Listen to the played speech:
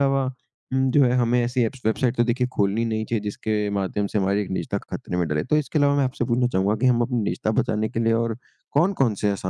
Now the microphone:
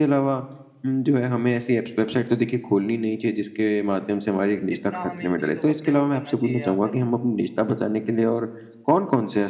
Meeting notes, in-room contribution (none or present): present